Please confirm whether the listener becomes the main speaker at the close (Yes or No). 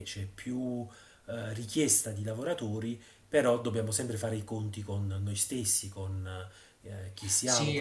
Yes